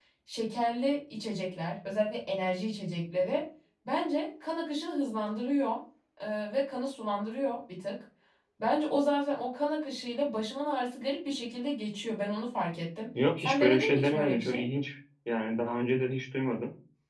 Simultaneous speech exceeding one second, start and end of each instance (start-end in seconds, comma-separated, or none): 13.4-14.7